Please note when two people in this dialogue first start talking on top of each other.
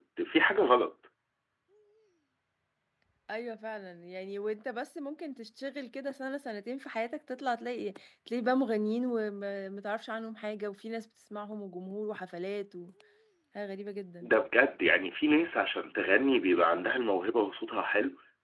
none

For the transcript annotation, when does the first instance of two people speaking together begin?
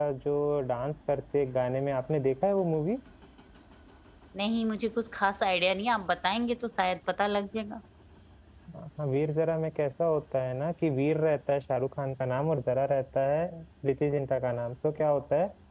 none

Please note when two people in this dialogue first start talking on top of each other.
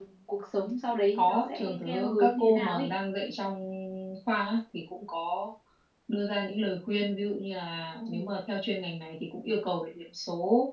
1.1 s

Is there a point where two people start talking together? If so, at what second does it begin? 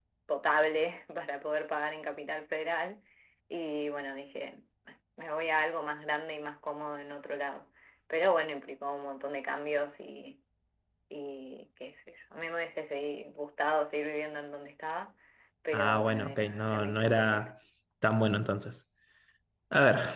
15.7 s

